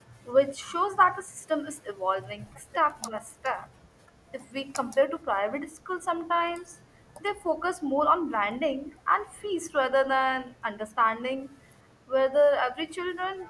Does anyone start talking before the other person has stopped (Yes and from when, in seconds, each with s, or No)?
No